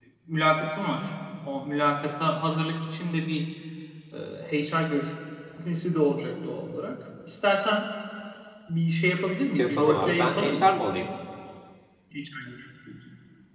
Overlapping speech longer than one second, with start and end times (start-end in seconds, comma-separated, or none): 9.6-10.8